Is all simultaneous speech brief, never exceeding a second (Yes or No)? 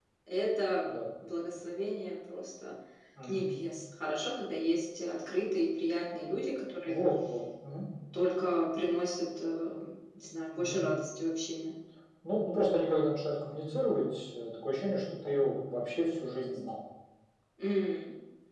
Yes